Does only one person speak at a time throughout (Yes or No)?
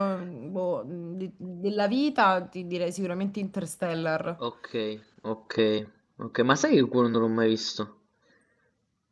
Yes